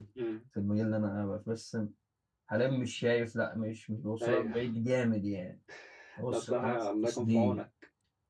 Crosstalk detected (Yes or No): Yes